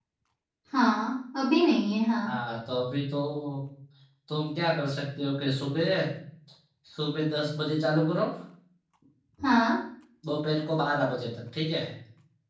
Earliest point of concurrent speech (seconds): none

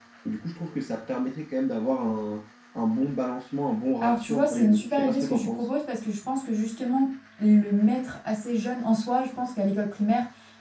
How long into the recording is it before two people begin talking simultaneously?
4 s

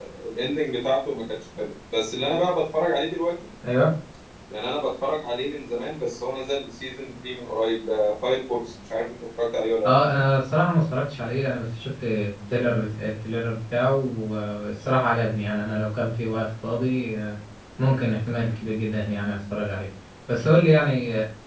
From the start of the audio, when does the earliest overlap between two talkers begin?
none

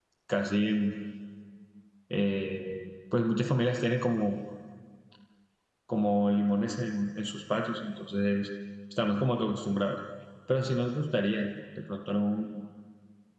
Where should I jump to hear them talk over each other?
none

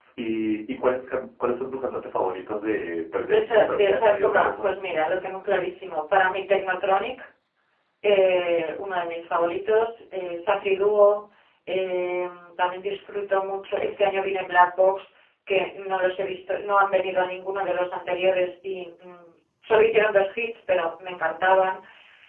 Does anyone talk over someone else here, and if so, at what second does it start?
3 s

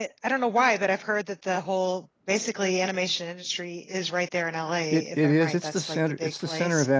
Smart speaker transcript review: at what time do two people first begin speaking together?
5 s

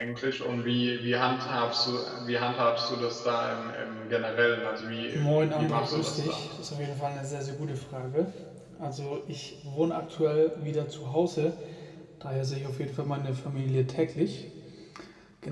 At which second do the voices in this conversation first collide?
5 s

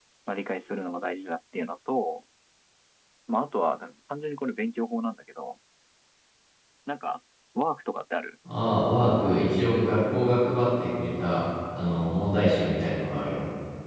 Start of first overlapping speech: none

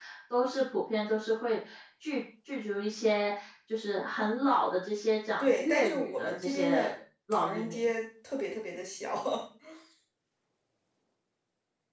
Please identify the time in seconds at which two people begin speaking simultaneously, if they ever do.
5 s

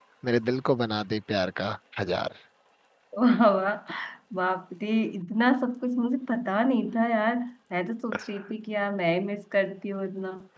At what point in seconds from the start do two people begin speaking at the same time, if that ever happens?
none

